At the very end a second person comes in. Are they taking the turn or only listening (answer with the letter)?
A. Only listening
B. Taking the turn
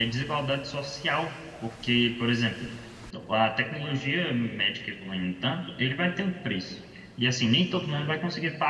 A